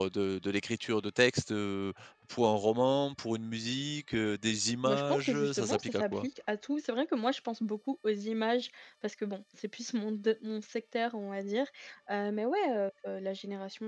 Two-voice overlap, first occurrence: 5 s

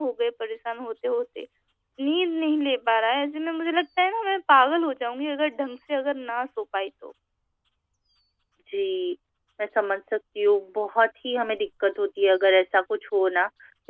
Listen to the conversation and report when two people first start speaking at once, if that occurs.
none

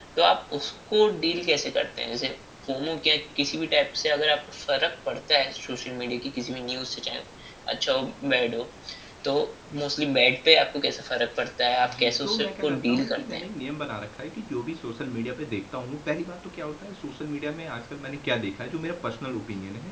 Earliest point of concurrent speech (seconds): 12 s

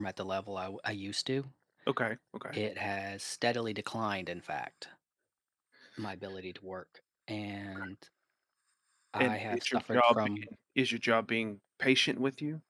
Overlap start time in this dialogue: 9 s

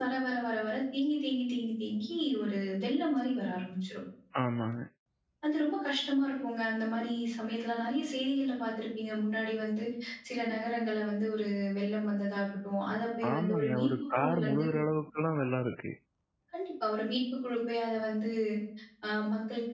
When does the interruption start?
13 s

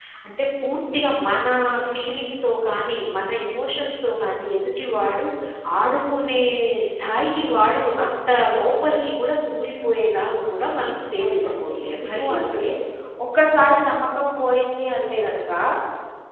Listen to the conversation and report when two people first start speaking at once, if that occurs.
11 s

